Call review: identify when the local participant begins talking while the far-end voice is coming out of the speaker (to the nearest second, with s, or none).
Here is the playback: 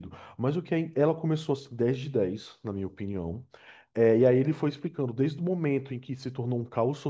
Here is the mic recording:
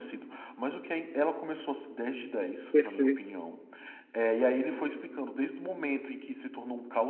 3 s